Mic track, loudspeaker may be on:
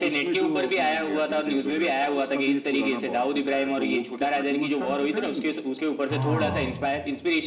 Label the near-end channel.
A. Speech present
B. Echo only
A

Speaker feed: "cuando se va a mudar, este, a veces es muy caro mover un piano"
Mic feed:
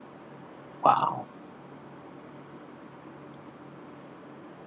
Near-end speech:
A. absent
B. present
B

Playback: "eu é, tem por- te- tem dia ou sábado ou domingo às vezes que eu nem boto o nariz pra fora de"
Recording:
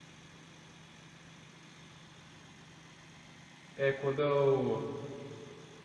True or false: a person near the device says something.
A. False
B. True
B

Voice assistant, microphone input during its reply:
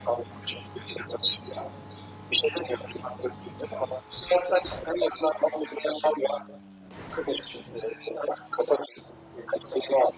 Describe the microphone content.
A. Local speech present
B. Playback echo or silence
B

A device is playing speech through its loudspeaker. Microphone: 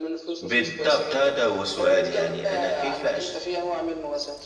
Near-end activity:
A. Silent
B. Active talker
B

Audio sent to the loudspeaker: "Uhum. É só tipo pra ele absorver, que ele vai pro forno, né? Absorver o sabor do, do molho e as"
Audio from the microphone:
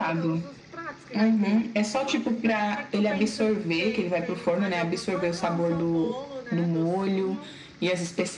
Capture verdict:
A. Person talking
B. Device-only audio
A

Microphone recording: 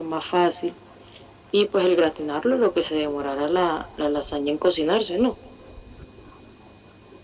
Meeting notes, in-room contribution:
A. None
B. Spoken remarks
A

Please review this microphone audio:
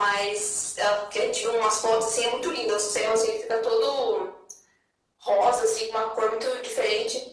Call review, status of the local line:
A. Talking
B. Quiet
B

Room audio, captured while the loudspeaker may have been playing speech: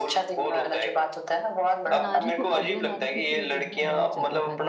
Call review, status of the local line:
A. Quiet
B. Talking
B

